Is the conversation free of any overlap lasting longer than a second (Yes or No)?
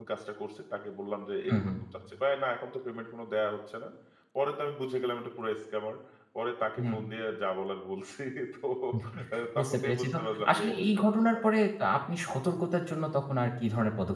No